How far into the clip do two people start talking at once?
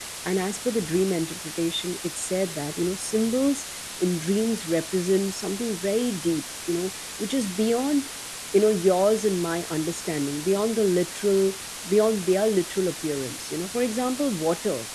none

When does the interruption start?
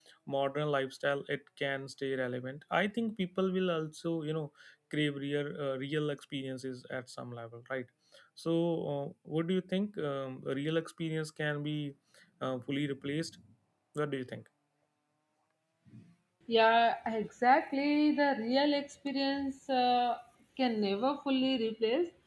none

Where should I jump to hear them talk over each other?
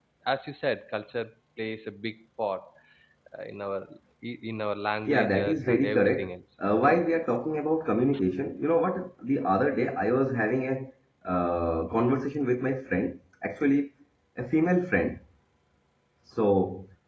5.1 s

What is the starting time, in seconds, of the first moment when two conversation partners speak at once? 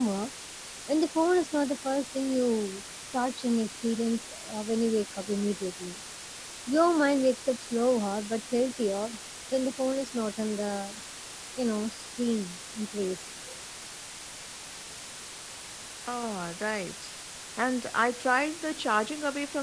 none

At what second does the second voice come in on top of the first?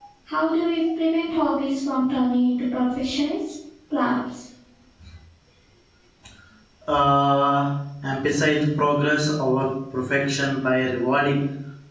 none

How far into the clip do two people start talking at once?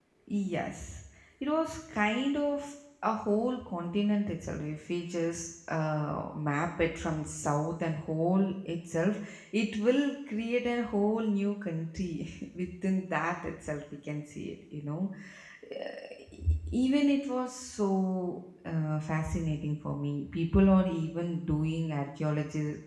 none

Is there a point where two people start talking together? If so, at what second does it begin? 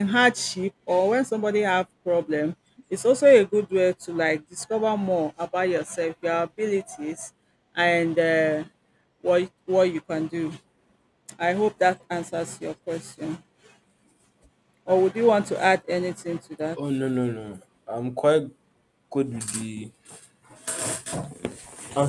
none

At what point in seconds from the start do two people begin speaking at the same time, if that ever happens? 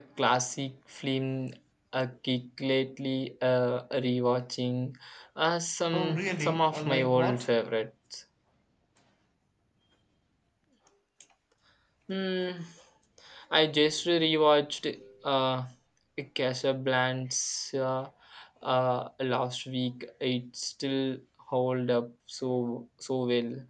5.9 s

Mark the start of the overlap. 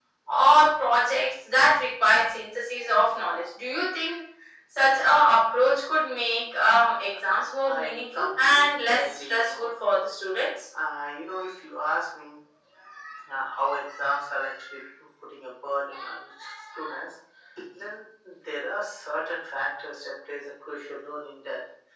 7.6 s

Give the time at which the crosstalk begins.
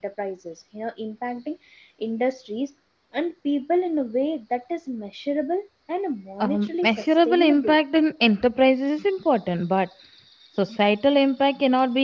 6.4 s

